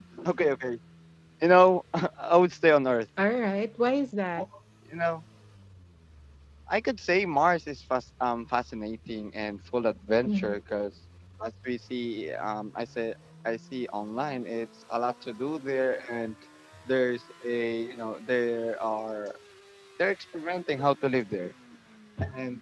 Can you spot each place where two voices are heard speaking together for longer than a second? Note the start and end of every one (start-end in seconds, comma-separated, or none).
none